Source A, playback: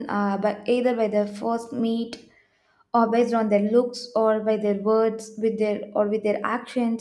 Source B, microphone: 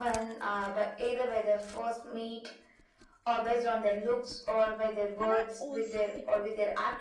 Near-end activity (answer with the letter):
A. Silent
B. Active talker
B